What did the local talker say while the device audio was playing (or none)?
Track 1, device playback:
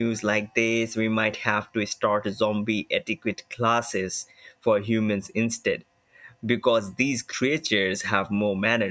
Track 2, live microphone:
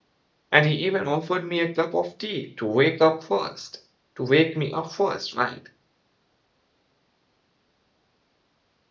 And he even offered me a cup of tea to wake up first, to wake me up first, right?